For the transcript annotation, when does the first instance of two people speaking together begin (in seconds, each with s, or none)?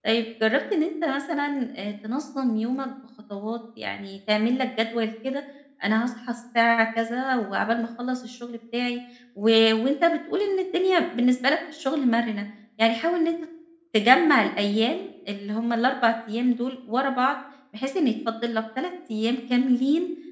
none